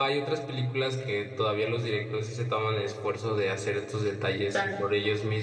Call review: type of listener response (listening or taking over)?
listening